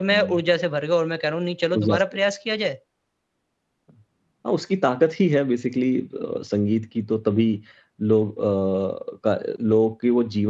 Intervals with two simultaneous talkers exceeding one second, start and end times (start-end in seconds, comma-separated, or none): none